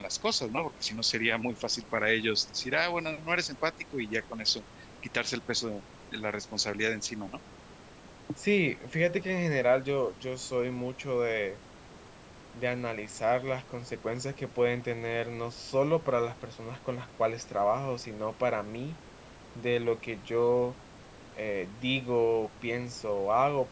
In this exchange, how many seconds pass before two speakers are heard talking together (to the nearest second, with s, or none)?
none